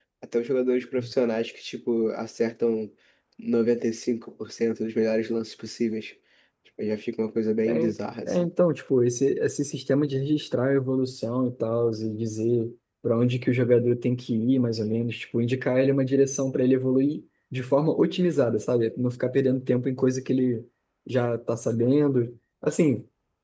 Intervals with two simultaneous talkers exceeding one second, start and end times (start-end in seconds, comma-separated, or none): none